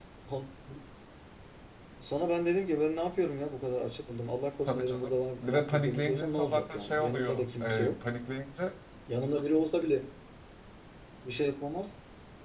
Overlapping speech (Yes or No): Yes